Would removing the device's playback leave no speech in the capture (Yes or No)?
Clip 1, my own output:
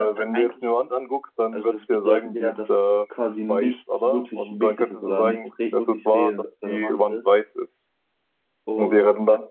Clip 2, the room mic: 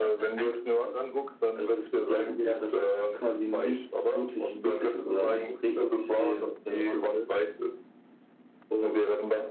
Yes